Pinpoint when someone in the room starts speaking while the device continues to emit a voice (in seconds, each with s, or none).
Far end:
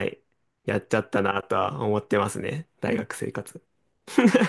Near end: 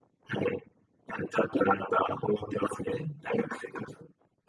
none